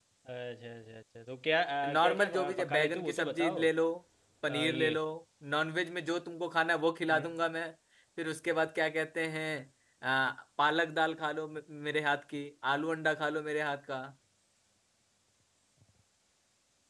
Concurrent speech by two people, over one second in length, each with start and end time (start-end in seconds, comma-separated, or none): 2.0-3.6